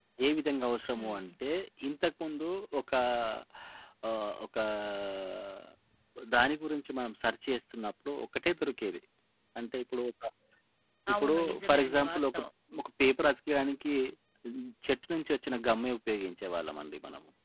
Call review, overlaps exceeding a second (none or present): present